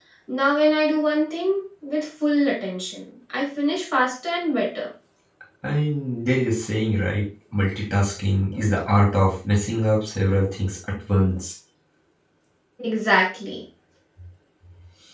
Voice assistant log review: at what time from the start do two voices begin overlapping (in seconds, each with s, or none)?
none